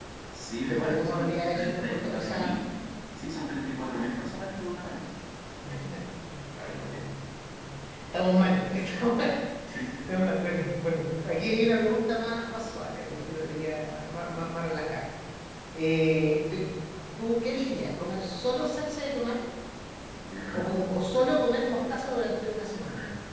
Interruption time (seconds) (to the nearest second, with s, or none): 1 s